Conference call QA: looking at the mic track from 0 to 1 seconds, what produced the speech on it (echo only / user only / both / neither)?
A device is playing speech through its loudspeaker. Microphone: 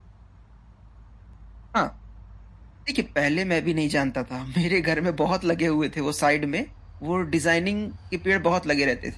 neither